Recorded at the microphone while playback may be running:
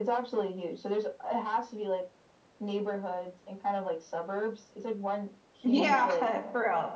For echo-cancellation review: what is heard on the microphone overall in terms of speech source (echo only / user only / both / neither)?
both